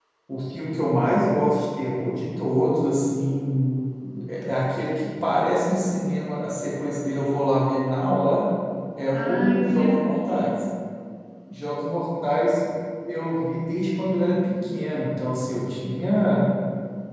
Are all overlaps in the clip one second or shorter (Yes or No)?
No